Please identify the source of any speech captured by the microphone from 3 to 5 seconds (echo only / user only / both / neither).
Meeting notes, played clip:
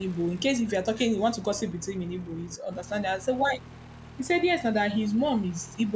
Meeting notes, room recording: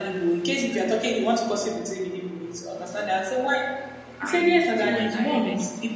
both